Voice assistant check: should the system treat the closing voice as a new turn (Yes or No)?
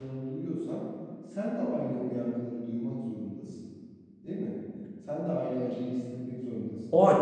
Yes